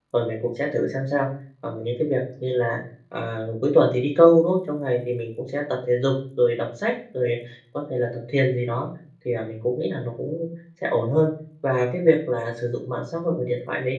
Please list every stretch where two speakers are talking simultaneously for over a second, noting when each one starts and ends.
none

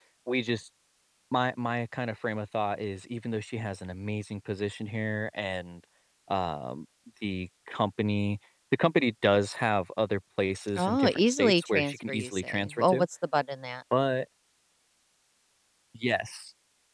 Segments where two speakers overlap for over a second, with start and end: 10.8-13.1

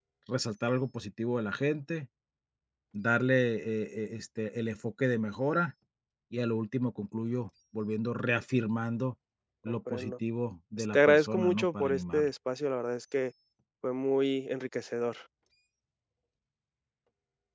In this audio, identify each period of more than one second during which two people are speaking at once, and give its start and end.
10.8-12.3

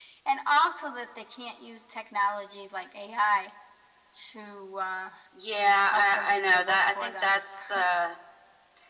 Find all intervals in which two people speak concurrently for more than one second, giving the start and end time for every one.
5.9-7.4

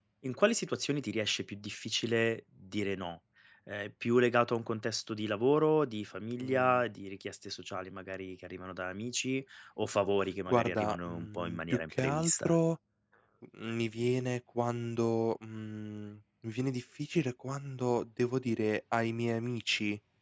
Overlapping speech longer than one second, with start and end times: 10.5-12.6

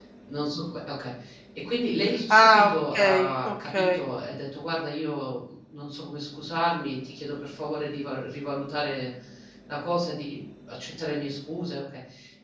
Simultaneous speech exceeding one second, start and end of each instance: 2.3-4.0

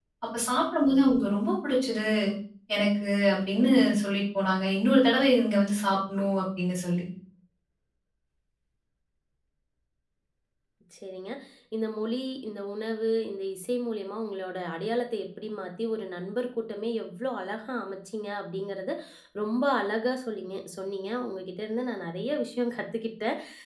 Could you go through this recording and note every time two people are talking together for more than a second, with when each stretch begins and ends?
none

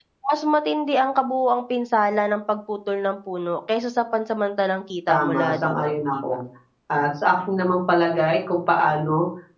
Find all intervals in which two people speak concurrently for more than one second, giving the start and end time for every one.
5.1-6.4

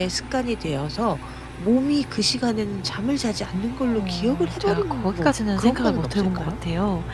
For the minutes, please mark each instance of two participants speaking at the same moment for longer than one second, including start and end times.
3.8-6.5

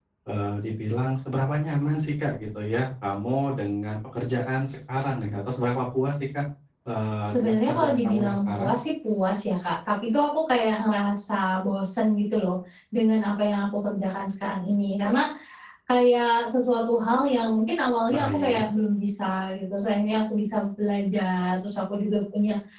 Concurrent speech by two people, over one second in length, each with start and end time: 7.3-8.7

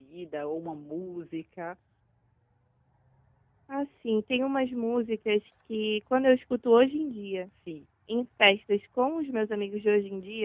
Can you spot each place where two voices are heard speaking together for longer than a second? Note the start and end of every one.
none

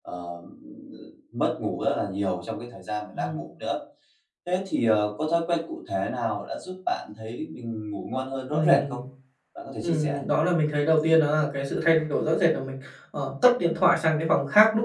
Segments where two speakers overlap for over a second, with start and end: none

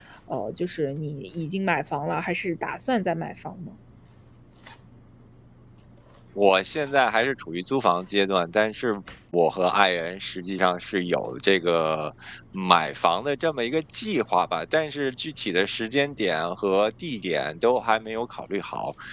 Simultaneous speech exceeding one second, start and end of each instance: none

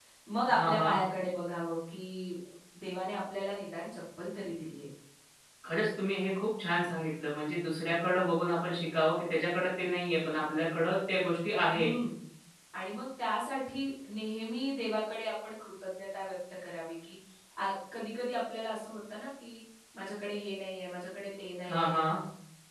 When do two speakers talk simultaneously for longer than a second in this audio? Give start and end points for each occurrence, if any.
none

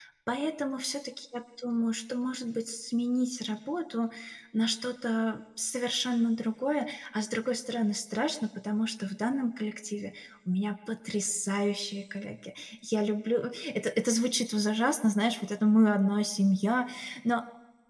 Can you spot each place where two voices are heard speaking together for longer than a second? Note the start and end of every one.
none

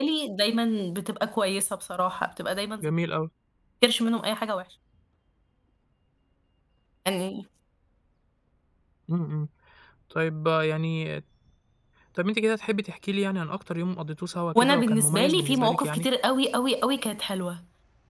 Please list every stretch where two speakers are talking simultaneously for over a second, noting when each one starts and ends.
14.6-16.1

